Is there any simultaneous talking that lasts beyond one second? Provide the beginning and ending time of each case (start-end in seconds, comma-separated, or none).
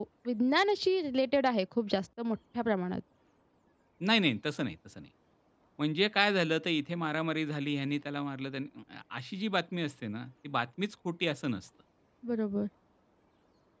none